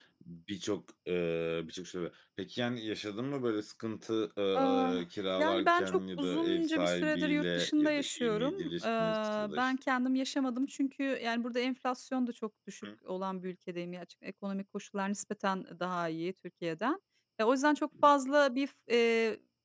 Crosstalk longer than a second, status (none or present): present